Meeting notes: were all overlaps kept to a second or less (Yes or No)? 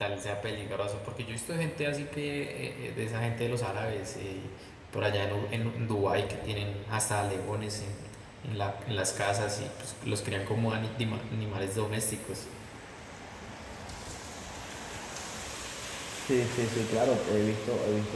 Yes